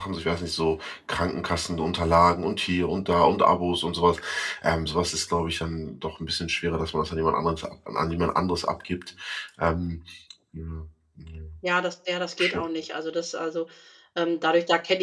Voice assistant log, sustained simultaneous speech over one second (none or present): none